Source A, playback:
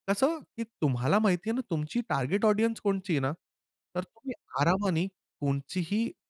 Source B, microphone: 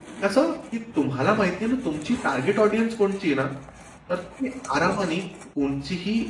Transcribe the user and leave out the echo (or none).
none